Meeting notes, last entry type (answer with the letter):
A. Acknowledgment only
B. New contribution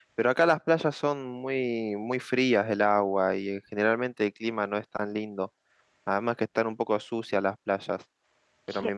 A